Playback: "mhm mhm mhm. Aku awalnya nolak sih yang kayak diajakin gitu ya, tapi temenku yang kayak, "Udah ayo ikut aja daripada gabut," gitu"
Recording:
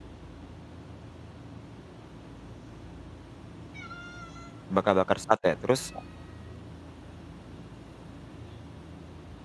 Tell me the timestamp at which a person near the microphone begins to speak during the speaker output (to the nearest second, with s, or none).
5 s